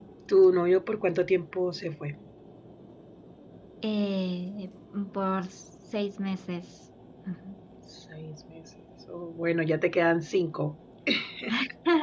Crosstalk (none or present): none